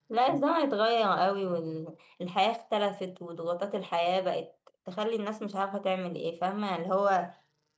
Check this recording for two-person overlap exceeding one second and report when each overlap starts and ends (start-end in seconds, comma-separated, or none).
none